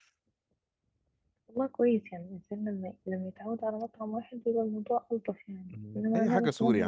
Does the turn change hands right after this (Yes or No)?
Yes